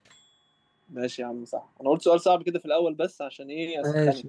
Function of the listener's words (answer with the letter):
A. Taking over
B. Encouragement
A